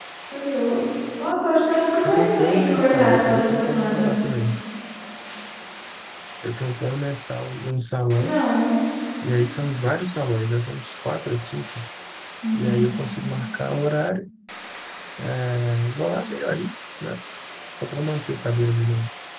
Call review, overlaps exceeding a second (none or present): present